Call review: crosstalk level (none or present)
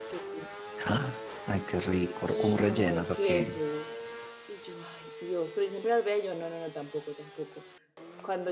present